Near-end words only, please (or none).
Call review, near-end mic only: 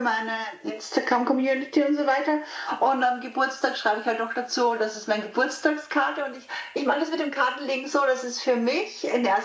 none